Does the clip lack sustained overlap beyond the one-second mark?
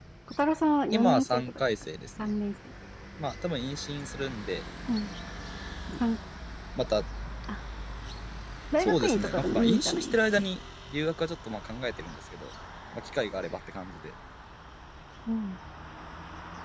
No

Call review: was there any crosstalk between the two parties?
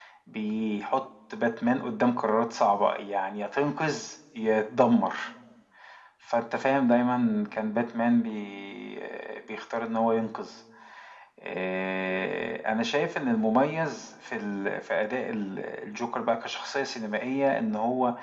No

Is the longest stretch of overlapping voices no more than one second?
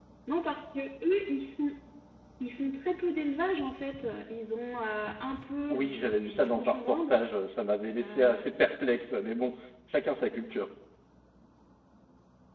No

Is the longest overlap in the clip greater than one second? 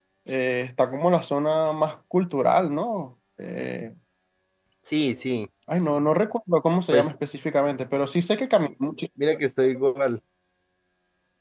No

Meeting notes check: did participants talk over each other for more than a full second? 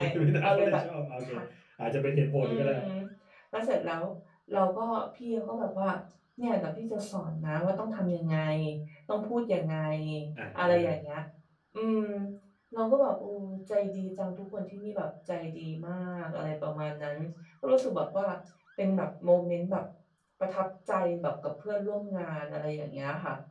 No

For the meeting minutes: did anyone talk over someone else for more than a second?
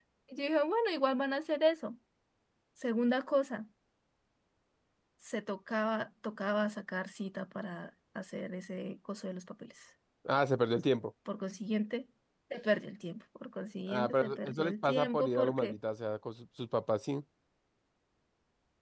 Yes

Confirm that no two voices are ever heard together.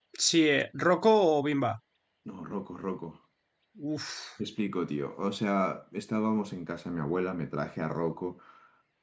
Yes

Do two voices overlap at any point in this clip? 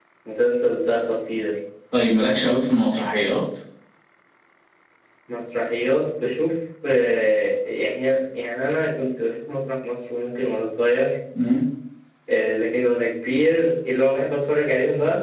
No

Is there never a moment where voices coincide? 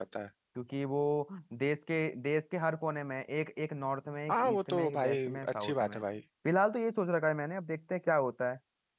No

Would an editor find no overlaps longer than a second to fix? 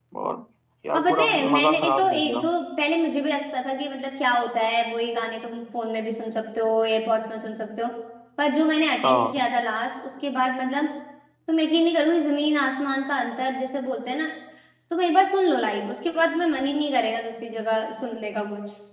No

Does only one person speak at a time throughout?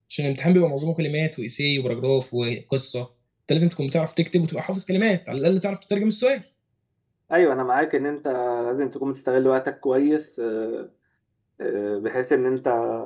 Yes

